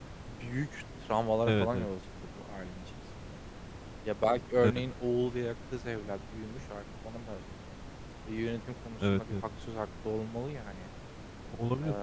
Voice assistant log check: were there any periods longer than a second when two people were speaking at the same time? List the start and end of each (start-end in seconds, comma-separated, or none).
none